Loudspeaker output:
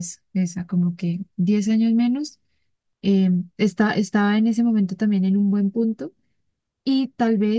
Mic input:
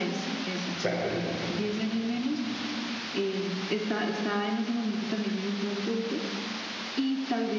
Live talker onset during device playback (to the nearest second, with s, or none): 1 s